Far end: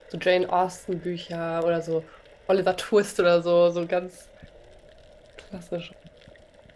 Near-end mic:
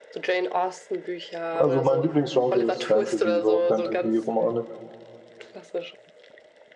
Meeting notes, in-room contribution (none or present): present